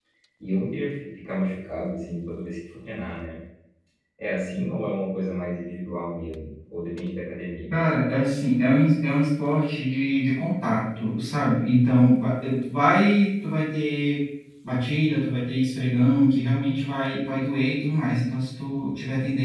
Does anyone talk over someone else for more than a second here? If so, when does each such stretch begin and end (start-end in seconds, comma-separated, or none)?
none